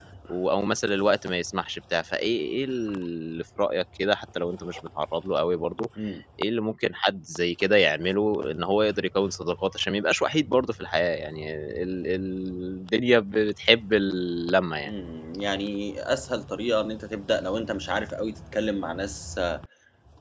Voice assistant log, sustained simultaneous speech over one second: none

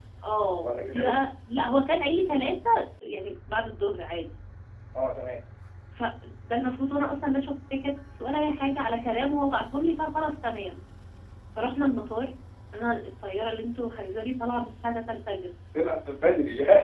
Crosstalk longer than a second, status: none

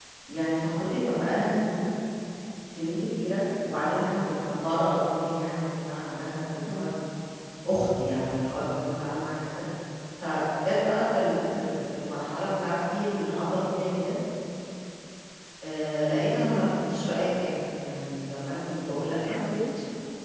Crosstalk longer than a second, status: none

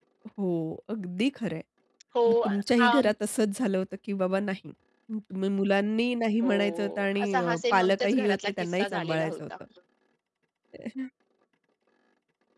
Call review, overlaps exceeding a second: present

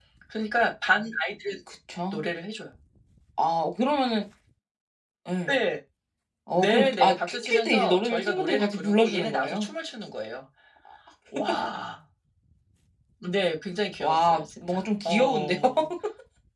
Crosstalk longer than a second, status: present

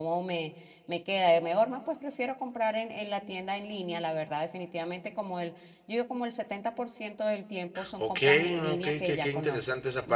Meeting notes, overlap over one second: present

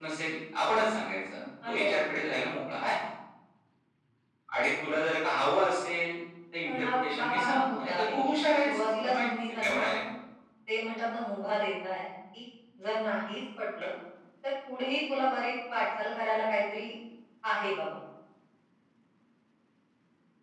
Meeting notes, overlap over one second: present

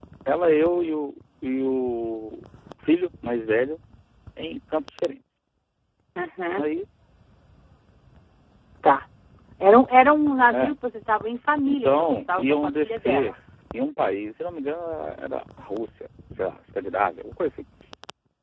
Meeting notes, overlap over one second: present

